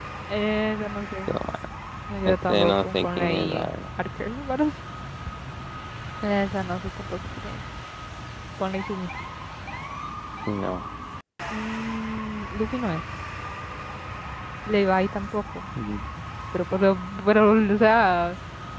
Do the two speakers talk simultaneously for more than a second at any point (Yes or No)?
Yes